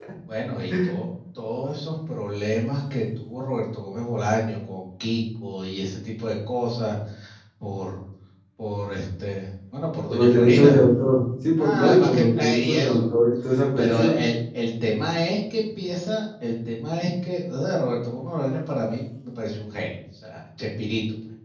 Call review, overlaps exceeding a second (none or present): present